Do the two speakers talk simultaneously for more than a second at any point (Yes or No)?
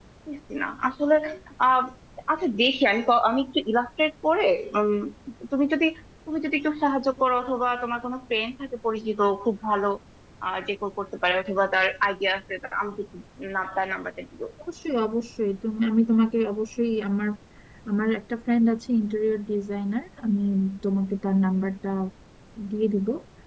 No